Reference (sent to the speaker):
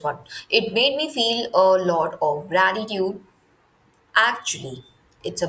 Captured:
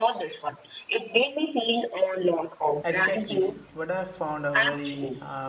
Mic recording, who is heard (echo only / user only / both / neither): both